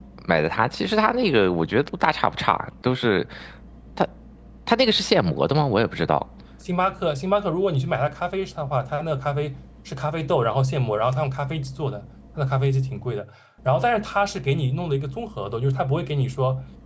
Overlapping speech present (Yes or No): No